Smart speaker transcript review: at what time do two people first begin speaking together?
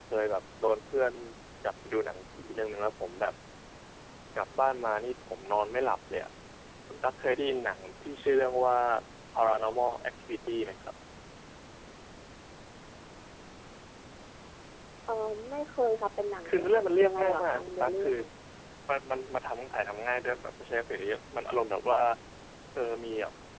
16.4 s

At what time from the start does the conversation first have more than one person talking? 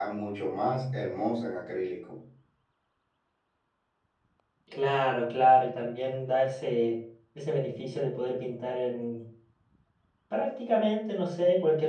none

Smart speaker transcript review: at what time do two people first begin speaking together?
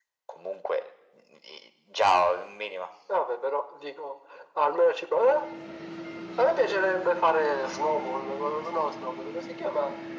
none

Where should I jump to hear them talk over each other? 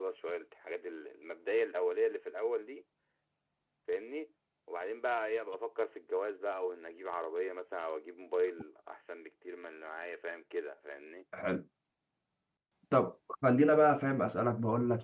none

